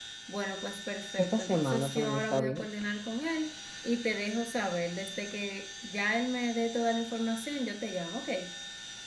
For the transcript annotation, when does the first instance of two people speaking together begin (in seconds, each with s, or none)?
1.2 s